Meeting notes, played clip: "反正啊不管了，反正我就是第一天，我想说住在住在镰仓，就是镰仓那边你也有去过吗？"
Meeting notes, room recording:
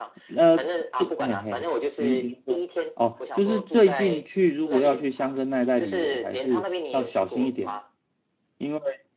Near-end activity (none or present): present